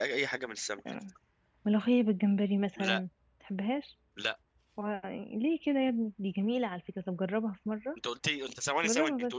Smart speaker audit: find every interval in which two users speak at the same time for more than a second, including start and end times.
none

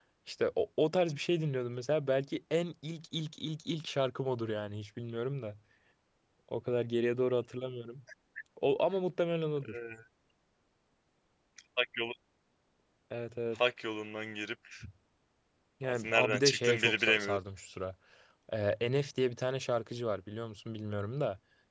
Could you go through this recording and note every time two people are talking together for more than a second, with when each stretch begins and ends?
15.8-17.4

